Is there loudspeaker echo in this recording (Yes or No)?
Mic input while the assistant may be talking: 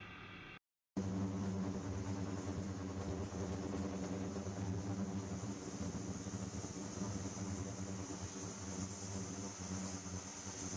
No